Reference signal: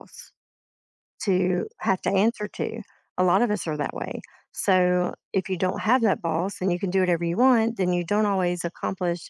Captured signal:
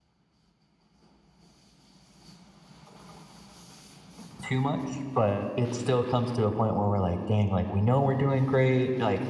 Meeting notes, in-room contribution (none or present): present